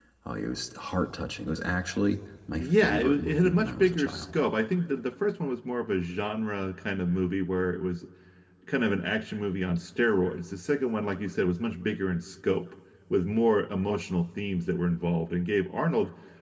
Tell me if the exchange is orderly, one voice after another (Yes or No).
No